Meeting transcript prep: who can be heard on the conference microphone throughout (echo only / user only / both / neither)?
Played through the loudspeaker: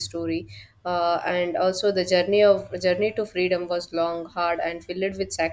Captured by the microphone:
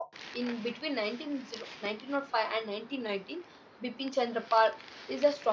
user only